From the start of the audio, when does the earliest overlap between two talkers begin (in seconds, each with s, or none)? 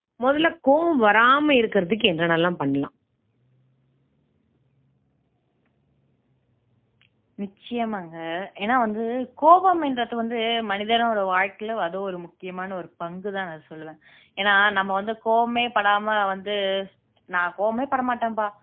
none